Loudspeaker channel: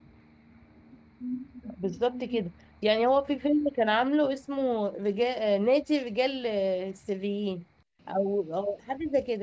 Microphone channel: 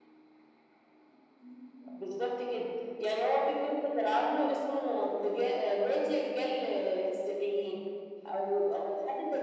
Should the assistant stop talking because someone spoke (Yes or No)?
No